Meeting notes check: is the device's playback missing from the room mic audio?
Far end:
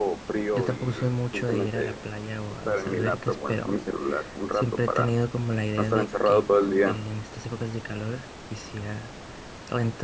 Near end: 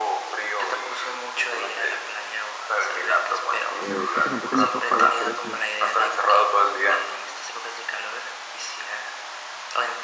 No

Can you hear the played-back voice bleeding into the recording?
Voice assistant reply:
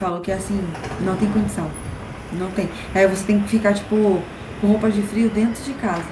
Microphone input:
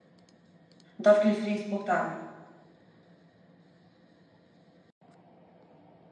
No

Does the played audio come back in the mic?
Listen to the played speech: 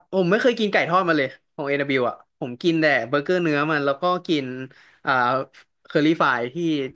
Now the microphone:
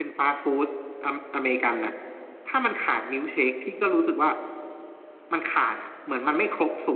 No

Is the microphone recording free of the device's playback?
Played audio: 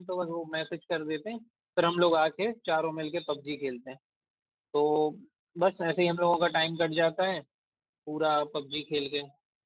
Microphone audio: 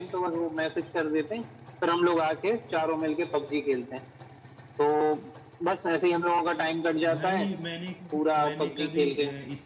No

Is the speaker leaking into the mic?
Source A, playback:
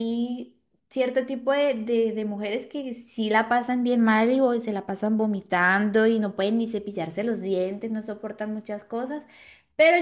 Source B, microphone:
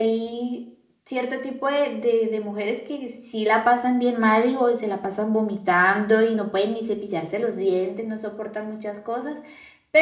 Yes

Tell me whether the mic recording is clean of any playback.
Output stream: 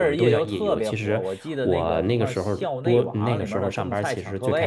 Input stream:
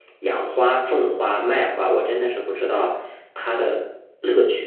Yes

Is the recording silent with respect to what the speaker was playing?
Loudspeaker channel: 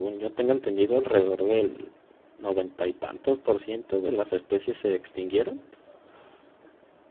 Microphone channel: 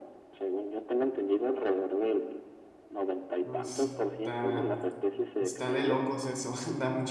No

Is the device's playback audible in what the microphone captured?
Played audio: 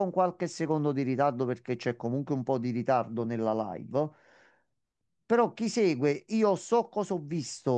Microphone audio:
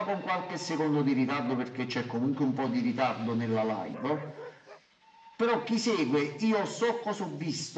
Yes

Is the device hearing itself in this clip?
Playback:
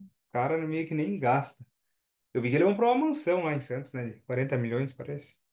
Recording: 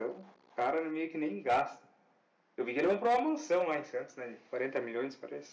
Yes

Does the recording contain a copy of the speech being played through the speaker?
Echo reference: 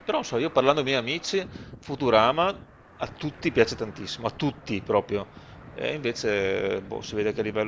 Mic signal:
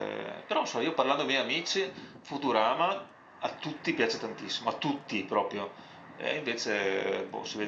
Yes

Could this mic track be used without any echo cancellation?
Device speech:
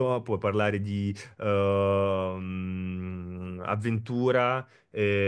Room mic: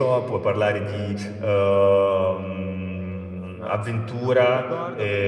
No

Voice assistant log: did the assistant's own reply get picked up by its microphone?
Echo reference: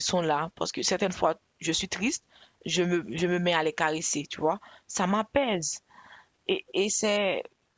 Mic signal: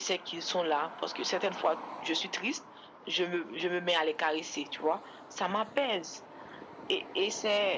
Yes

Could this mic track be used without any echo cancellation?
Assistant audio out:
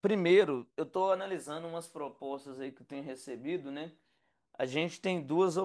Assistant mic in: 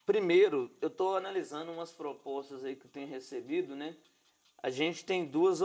No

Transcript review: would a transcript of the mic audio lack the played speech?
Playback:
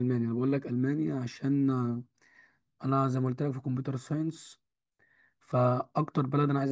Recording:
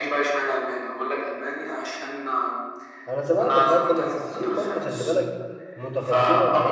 No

